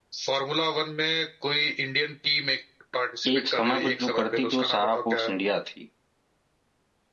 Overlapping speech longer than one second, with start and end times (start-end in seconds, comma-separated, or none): 3.3-5.3